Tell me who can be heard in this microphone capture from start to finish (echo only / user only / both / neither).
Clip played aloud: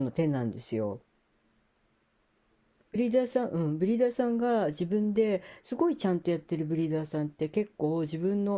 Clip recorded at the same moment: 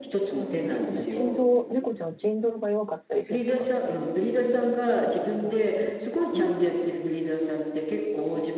both